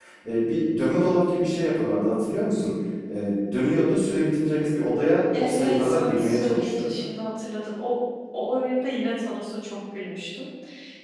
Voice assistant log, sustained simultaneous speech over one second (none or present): present